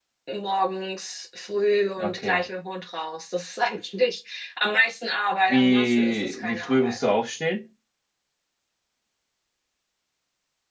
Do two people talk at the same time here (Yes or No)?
Yes